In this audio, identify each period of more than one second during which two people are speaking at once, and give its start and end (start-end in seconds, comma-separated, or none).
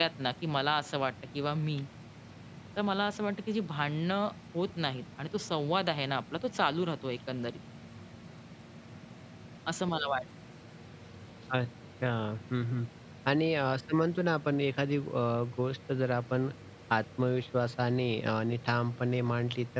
none